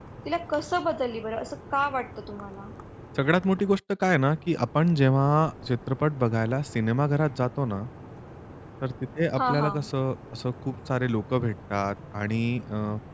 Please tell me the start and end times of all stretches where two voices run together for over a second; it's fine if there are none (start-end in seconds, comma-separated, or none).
none